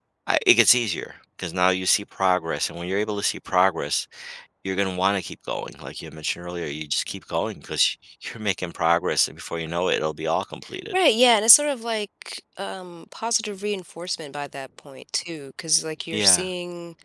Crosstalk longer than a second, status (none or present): none